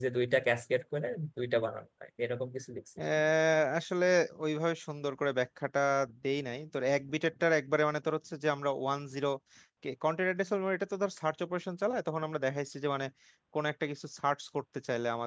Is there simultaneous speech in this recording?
No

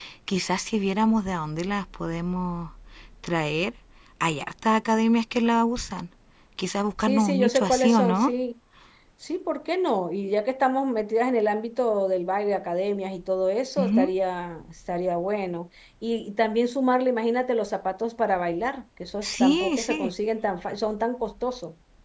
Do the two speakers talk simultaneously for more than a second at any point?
Yes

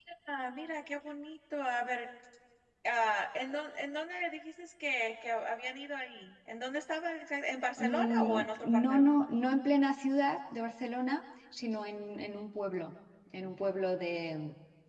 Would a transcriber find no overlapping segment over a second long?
No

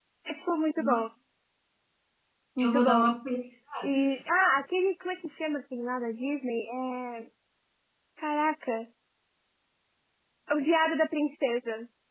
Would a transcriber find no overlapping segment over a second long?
Yes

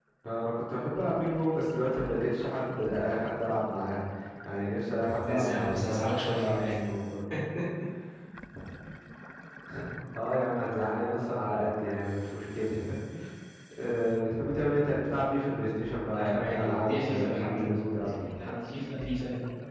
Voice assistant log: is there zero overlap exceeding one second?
No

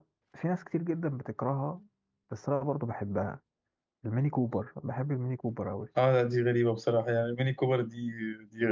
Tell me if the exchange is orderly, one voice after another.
Yes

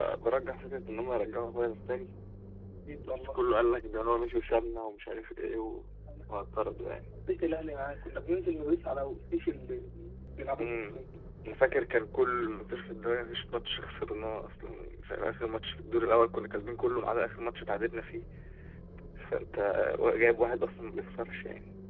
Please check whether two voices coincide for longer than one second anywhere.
No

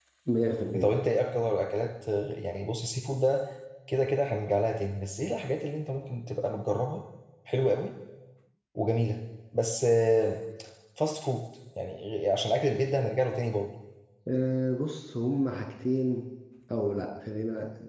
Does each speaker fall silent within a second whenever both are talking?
Yes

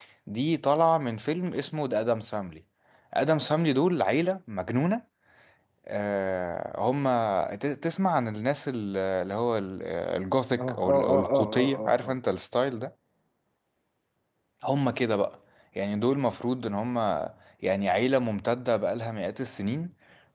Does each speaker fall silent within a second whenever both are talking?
No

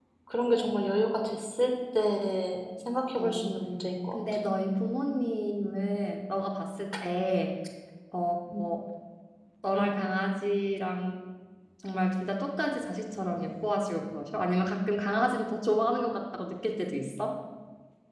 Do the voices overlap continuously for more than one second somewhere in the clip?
No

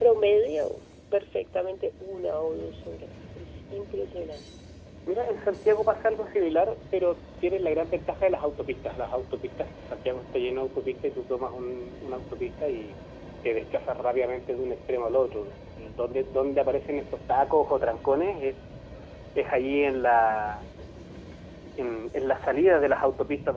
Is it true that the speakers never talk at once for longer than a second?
Yes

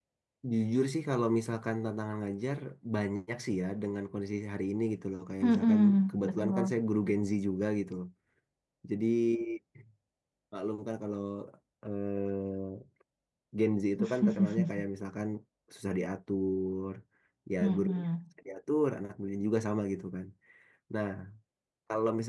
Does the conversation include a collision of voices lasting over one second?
Yes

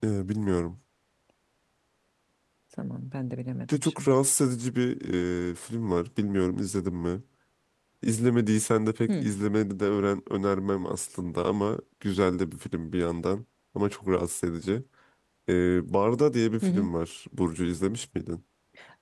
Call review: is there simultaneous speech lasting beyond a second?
No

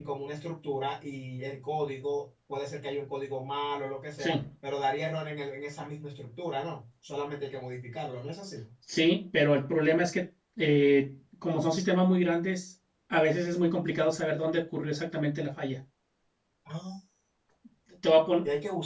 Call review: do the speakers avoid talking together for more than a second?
Yes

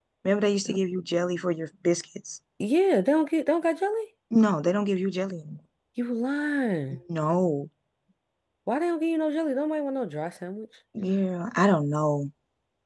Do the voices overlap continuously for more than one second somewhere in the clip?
No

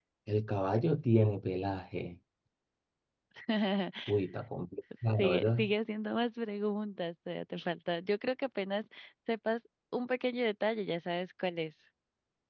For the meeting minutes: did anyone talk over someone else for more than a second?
No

